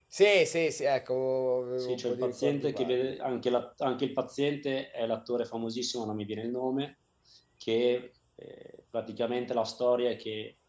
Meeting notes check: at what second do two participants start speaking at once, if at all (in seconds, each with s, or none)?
1.8 s